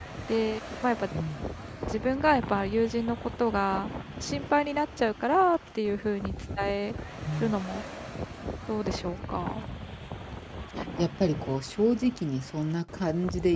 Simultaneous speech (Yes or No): No